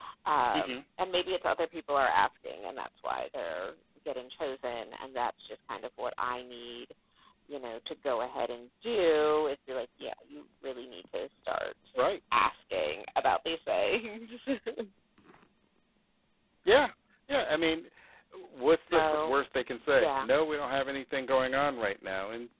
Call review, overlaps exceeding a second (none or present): none